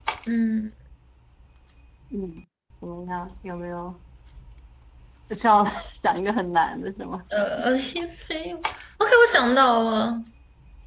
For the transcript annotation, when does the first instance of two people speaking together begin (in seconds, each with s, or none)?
none